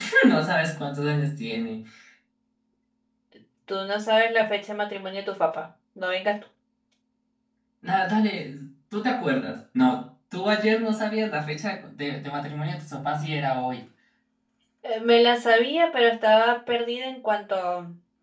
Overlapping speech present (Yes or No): No